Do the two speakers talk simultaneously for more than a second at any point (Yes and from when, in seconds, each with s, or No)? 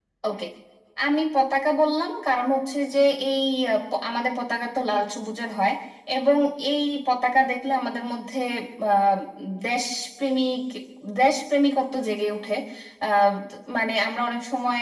No